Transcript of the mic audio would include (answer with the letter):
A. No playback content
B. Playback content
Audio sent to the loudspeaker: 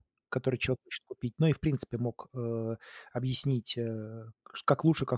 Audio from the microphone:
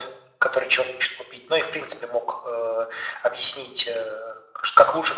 B